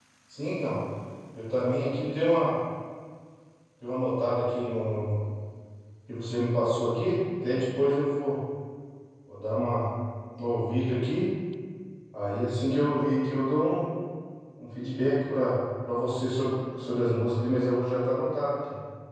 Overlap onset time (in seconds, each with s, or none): none